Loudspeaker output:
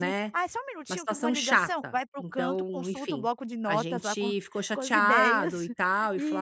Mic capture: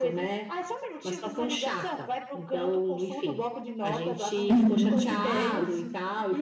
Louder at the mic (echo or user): user